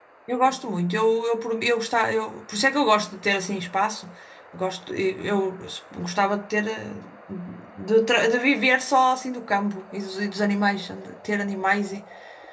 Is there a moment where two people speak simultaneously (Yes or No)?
No